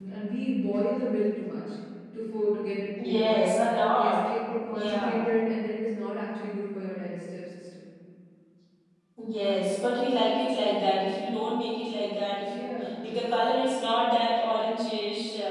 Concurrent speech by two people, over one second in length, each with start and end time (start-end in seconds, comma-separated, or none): none